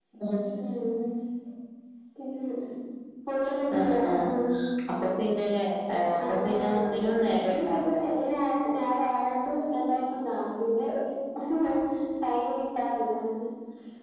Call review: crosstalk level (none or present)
present